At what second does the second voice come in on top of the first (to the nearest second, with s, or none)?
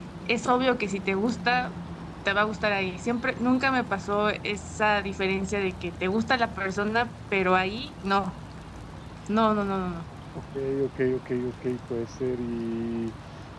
none